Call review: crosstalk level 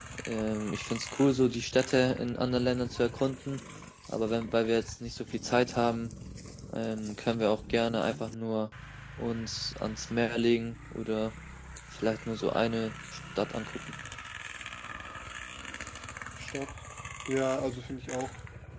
none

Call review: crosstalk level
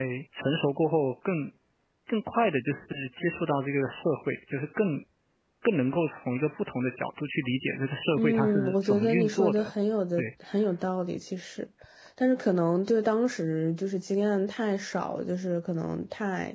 present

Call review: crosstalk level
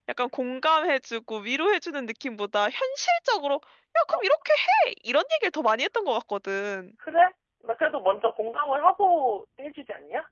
none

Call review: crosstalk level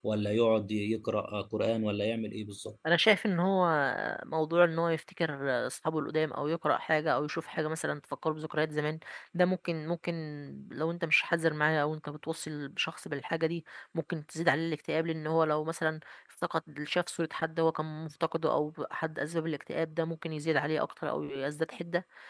none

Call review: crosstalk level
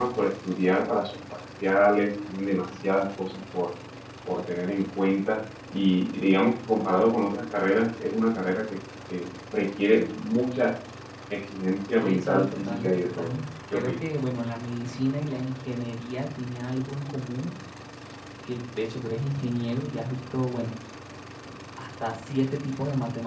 present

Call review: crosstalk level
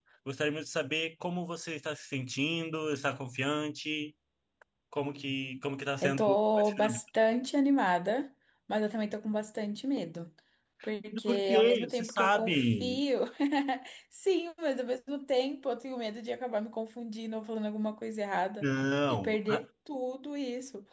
present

